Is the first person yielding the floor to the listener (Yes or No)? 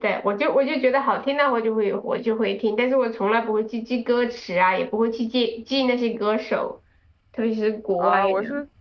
Yes